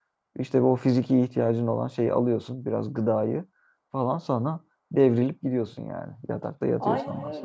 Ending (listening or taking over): taking over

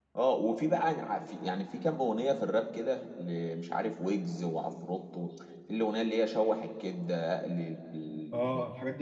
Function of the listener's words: taking over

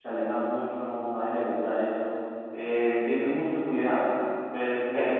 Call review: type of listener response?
listening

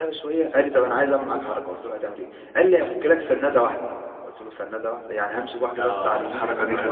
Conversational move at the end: taking over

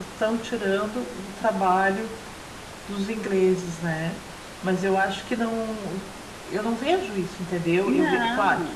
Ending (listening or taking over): listening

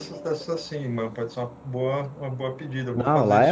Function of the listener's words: taking over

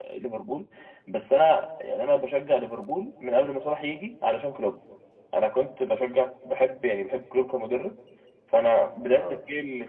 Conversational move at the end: listening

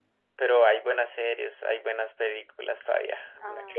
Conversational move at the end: taking over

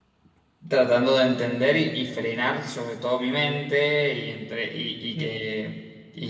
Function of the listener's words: listening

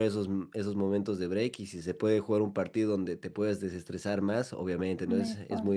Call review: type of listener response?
listening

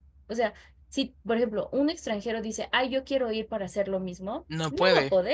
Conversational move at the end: listening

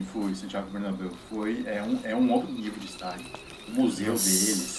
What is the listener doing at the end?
listening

